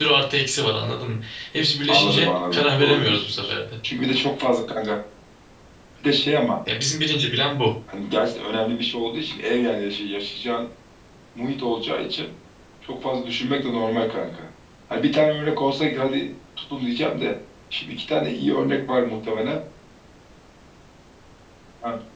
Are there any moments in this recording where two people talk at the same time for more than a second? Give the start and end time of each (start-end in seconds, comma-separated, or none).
1.9-3.5